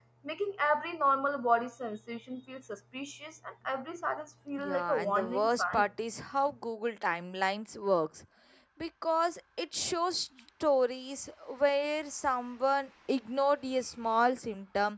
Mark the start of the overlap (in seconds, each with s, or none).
4.6 s